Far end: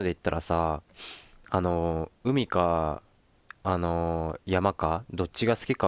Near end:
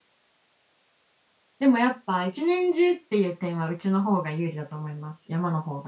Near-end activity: present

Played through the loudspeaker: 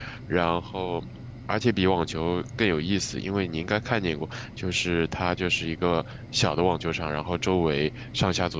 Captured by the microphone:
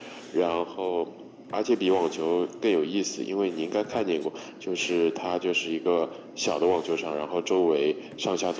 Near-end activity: none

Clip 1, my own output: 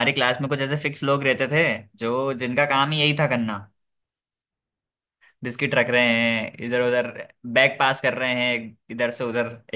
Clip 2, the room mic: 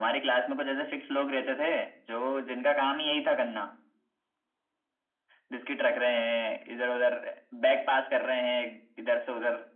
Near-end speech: none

